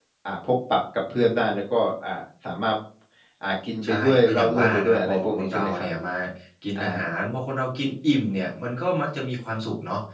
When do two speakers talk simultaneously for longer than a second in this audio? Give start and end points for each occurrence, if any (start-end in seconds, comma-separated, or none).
3.8-5.9